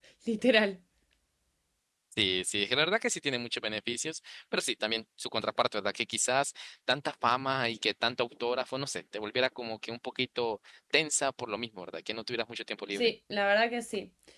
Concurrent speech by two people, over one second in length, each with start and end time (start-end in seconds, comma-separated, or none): none